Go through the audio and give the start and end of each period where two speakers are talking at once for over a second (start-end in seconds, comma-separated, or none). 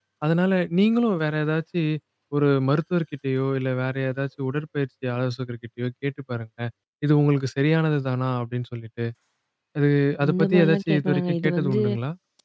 10.2-11.8